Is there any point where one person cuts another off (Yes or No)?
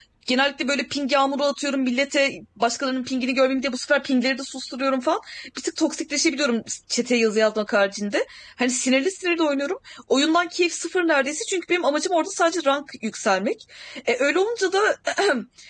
No